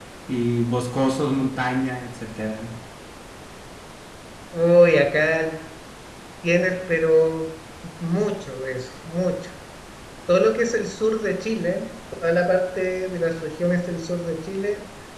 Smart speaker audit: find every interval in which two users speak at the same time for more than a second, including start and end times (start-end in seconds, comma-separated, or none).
none